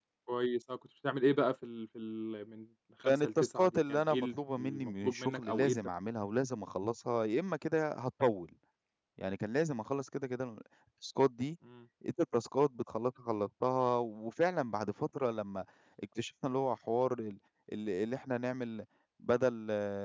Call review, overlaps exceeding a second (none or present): present